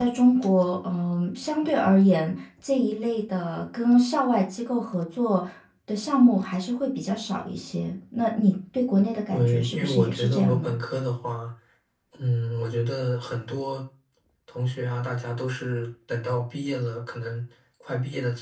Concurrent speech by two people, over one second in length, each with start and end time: 9.3-10.7

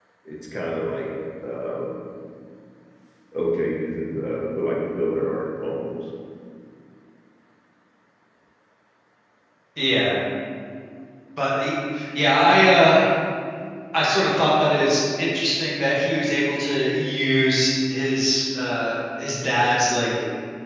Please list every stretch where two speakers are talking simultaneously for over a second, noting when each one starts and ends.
none

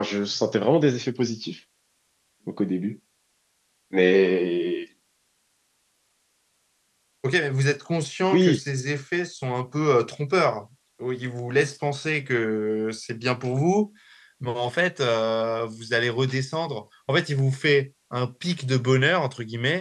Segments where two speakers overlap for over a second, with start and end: none

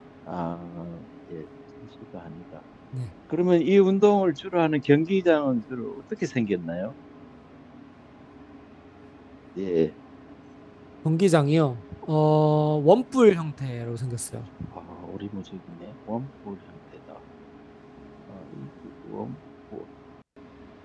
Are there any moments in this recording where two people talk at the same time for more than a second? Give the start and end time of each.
none

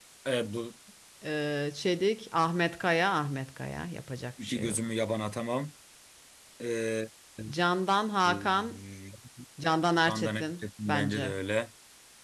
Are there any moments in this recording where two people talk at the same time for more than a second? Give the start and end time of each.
10.1-11.4

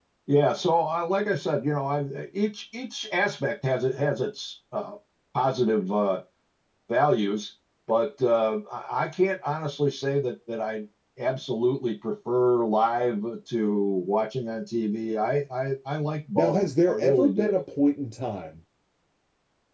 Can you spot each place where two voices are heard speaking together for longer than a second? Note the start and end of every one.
16.4-17.6

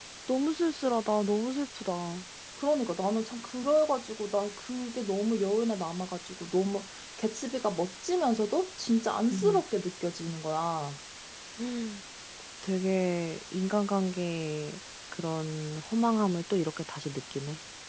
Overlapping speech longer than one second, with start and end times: none

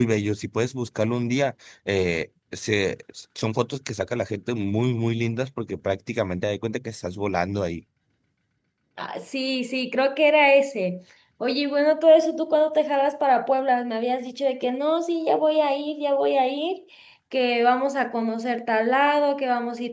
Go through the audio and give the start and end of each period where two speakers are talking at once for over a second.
none

